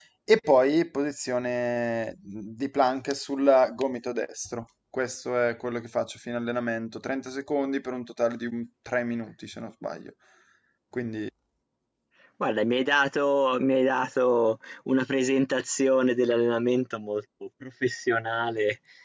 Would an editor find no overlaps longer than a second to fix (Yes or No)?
Yes